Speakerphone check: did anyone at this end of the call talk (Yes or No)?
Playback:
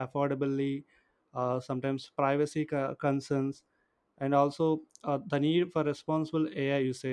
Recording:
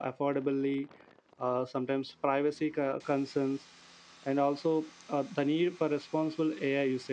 No